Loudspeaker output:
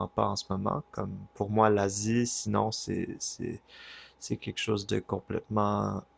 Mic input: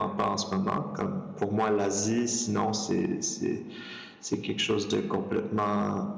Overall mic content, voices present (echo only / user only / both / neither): echo only